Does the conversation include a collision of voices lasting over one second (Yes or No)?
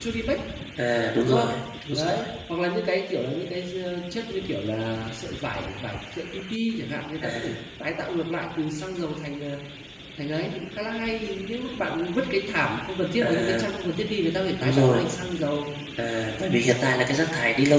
No